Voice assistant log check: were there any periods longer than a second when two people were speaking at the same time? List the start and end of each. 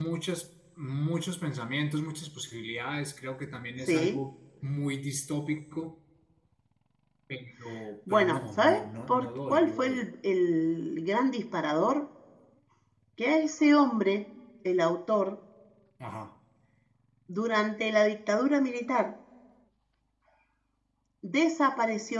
8.1-10.0

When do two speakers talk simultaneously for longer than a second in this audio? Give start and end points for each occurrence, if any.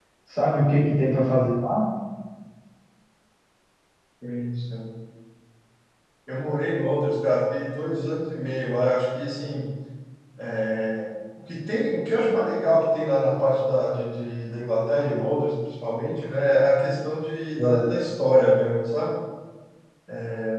none

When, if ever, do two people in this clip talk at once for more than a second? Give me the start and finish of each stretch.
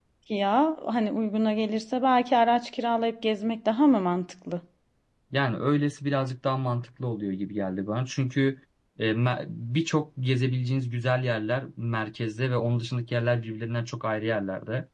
none

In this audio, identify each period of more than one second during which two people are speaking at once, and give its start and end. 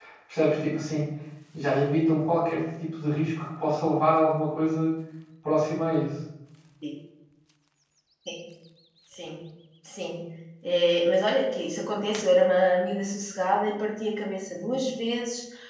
none

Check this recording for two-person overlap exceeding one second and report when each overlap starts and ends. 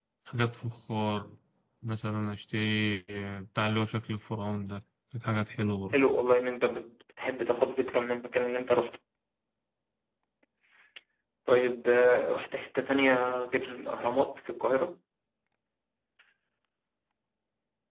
none

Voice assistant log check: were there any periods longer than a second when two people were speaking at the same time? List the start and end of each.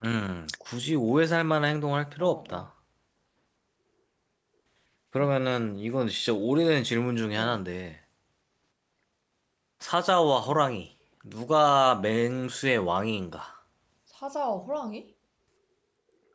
none

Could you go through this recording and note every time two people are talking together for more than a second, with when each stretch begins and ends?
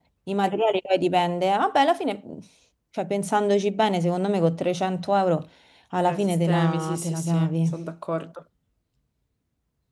6.0-7.8

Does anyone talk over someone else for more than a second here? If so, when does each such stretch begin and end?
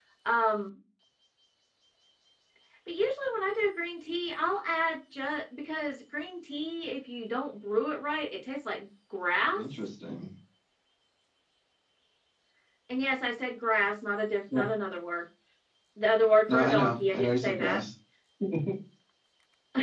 16.5-17.8

